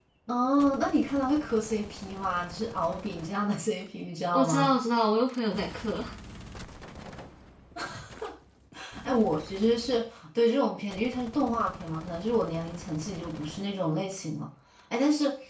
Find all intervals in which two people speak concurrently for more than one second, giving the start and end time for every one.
none

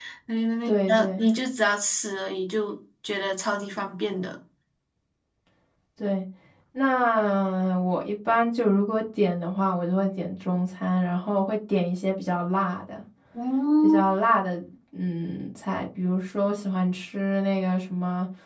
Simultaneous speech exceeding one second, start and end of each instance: none

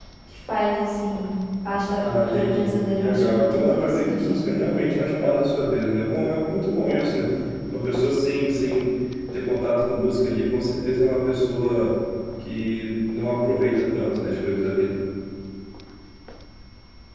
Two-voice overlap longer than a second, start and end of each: 2.0-4.6

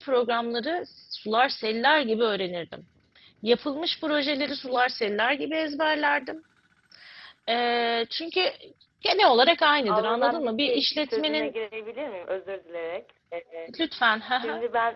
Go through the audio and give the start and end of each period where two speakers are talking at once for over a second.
9.9-11.5

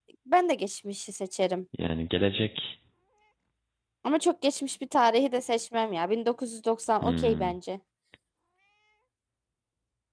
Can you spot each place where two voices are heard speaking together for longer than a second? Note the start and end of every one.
none

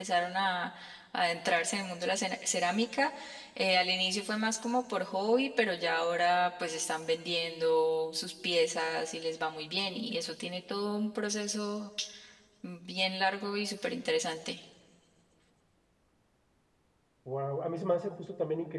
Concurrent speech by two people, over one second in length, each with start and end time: none

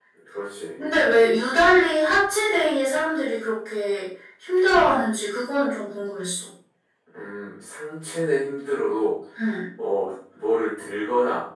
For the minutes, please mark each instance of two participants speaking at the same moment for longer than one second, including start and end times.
none

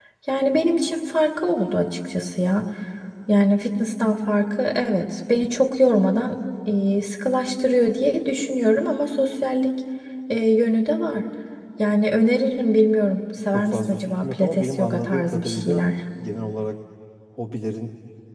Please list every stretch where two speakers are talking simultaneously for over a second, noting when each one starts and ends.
13.5-15.8

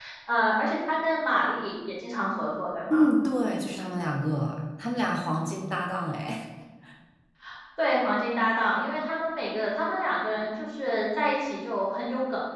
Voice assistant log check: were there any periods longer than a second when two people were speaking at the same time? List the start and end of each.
none

